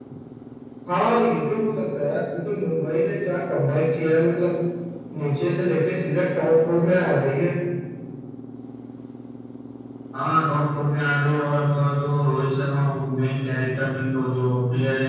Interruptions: none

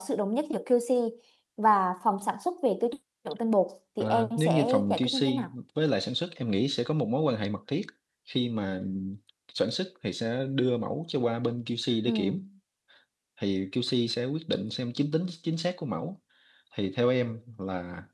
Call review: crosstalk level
present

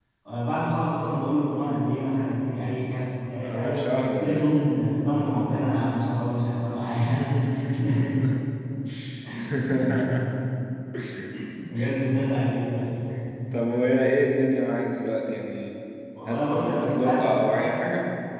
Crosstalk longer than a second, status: present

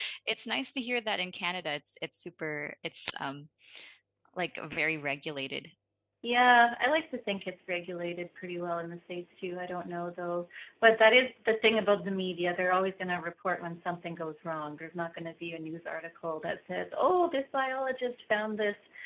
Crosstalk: none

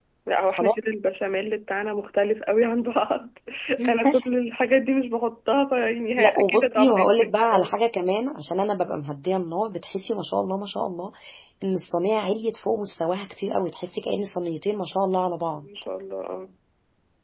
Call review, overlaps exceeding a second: present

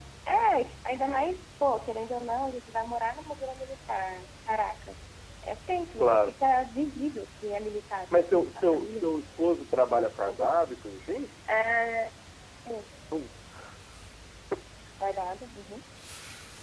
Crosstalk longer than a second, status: present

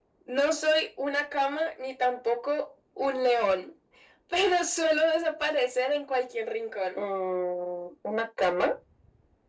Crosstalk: none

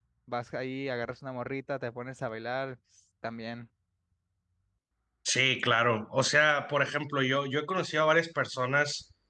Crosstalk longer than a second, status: none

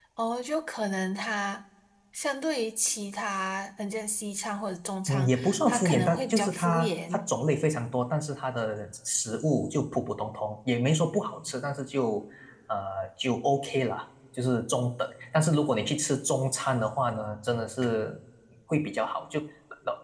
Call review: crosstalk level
present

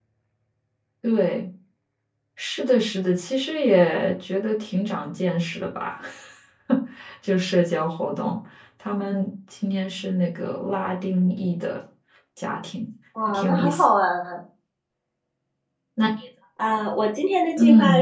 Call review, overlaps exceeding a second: none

